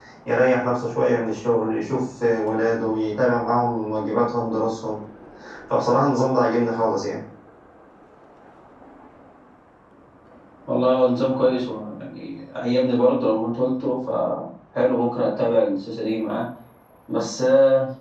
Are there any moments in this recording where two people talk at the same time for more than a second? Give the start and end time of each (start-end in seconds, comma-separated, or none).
none